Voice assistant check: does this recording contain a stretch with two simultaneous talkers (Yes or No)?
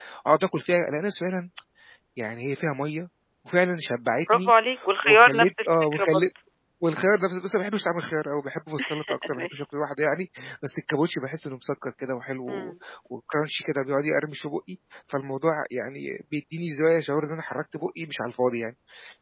Yes